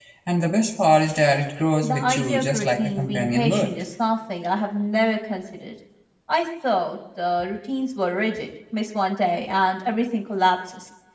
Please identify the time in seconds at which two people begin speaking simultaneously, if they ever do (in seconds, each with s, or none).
1.8 s